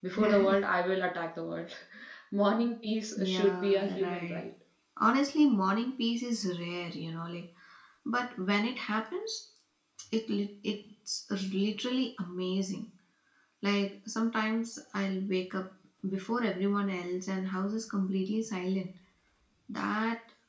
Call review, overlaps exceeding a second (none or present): present